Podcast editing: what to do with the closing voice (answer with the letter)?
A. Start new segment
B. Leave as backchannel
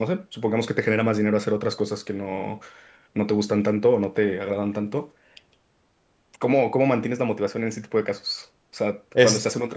B